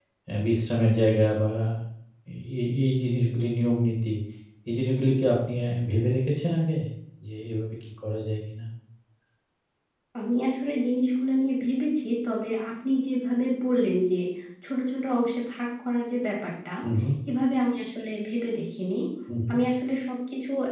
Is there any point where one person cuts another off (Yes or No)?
No